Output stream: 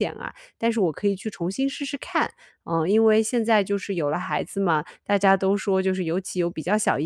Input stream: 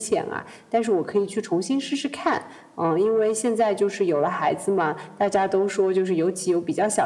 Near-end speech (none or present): none